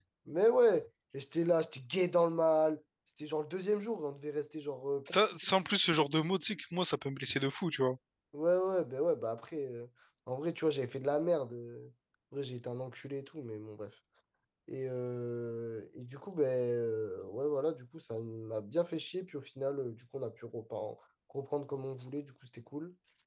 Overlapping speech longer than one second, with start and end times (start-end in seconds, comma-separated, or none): none